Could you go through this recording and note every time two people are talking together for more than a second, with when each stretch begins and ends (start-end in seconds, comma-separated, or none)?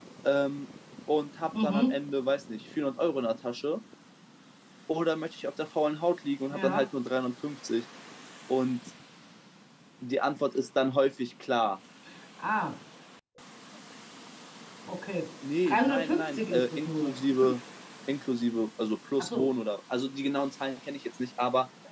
15.7-17.1